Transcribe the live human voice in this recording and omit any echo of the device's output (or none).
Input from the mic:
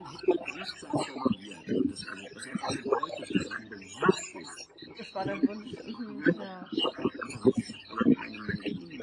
das war dein Wunsch. Mhm. Ja.